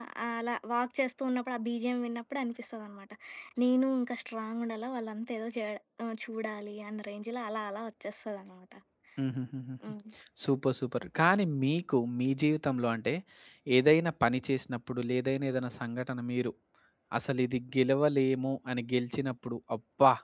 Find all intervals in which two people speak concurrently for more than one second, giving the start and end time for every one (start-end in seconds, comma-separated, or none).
none